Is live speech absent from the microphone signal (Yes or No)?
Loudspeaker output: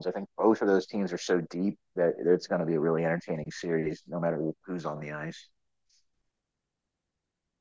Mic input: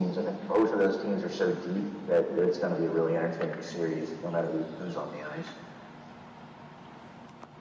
Yes